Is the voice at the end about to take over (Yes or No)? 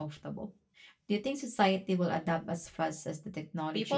Yes